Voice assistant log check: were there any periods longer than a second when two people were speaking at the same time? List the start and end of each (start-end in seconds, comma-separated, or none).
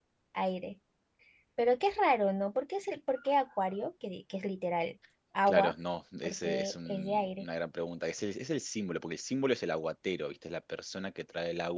6.2-7.5